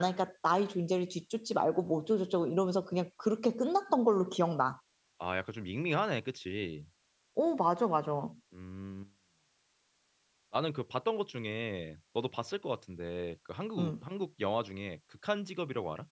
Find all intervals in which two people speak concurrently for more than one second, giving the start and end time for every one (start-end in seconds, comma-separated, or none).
none